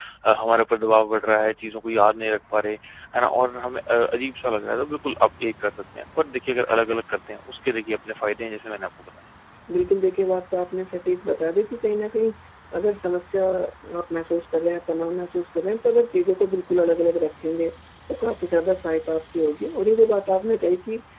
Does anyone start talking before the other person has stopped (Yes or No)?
No